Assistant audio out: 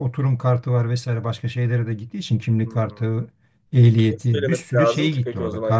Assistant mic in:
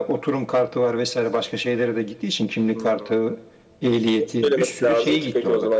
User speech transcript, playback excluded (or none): none